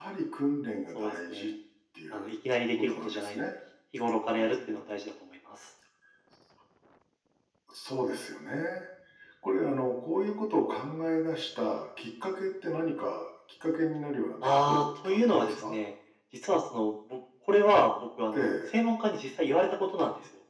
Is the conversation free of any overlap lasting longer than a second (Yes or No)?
No